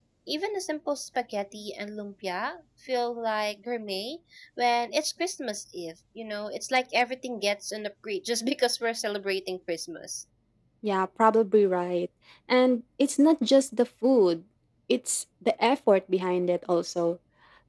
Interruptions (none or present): none